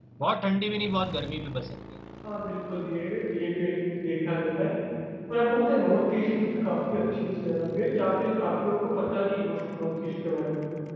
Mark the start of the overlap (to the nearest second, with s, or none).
none